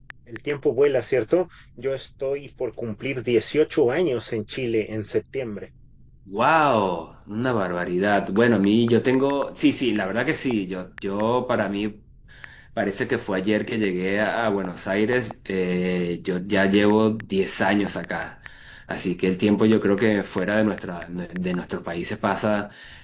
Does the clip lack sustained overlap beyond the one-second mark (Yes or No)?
Yes